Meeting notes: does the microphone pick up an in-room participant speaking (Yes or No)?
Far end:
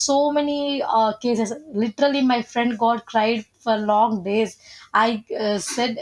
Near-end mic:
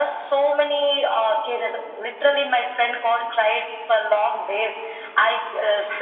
No